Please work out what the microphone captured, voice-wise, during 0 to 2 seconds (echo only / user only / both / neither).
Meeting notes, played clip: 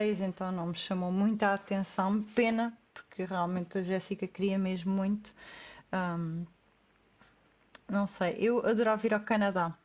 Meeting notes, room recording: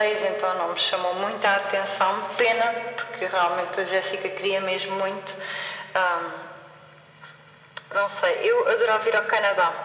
echo only